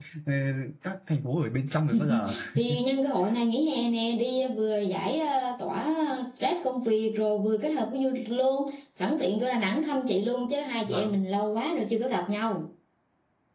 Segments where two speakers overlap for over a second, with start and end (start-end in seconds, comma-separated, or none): none